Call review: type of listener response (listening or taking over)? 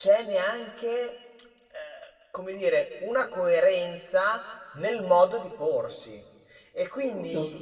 listening